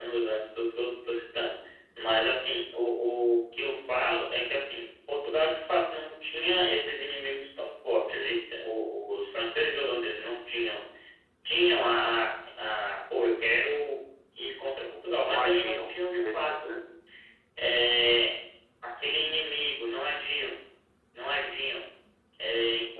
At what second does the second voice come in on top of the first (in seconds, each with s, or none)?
15.2 s